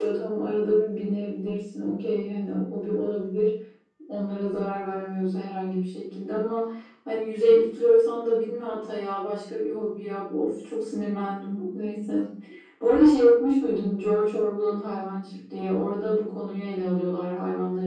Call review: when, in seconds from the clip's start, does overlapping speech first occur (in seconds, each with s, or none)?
none